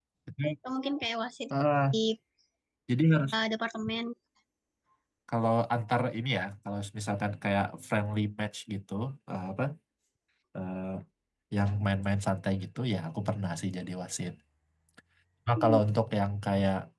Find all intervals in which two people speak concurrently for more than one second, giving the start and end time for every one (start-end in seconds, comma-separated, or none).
none